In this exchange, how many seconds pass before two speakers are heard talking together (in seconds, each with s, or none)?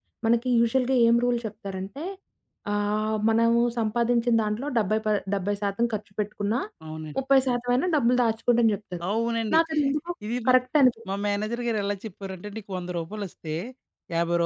none